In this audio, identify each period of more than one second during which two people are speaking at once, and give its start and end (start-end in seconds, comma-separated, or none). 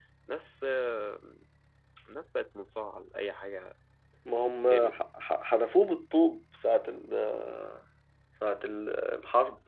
none